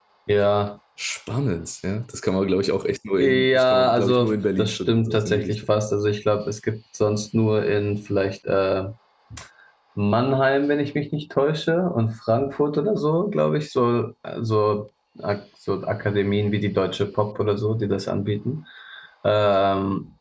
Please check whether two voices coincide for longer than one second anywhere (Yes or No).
Yes